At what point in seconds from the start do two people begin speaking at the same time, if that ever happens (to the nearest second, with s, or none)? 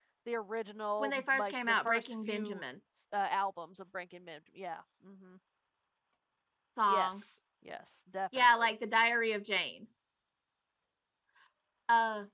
1 s